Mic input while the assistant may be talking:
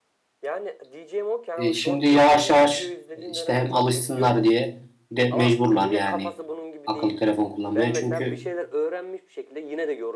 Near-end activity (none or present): present